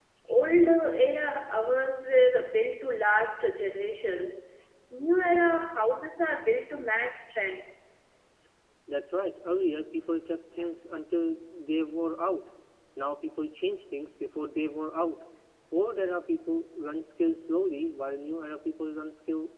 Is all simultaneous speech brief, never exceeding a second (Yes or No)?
Yes